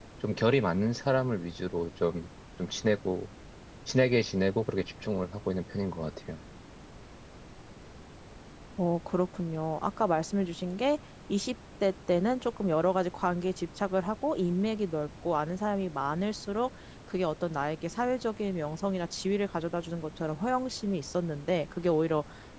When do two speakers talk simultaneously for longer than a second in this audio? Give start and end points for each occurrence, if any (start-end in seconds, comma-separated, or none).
none